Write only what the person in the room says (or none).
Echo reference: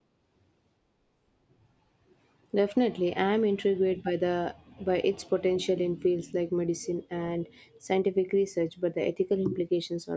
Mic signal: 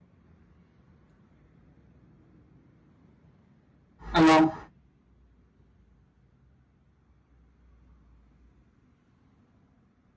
along